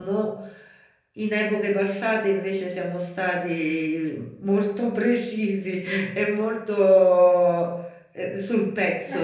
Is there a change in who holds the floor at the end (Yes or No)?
Yes